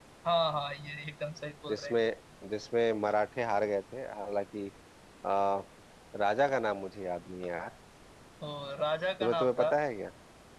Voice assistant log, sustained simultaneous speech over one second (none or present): none